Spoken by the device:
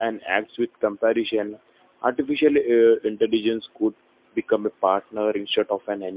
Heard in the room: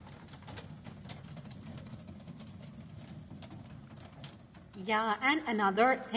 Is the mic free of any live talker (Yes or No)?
No